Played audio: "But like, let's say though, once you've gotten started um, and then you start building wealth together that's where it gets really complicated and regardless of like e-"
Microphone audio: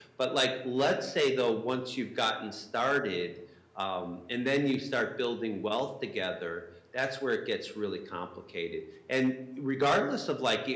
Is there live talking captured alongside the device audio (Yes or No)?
No